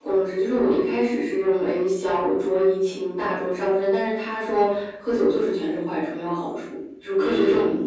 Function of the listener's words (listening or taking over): taking over